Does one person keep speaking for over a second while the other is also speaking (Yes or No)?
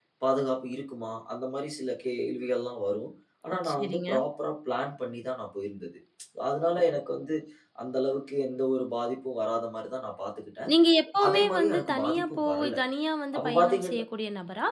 Yes